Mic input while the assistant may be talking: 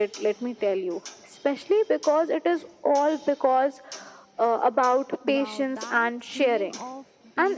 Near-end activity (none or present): present